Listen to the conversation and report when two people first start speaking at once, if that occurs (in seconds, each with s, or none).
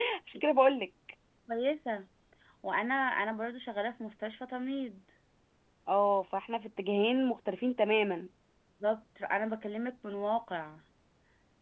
none